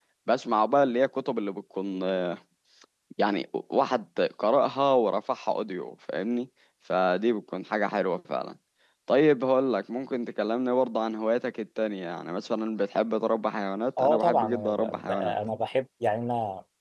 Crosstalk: present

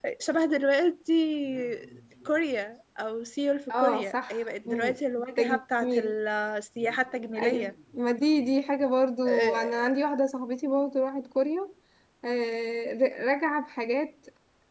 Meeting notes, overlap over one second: present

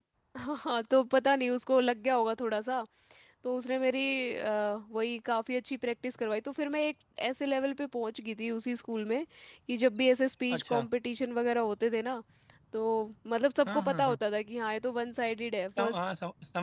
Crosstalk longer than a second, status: none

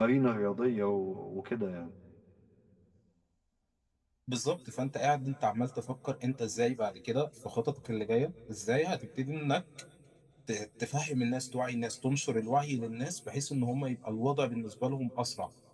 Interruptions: none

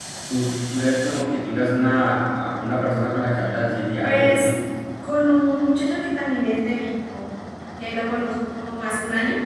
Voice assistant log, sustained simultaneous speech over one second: none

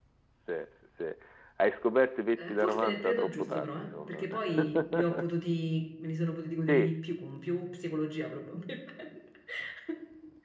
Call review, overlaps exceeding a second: present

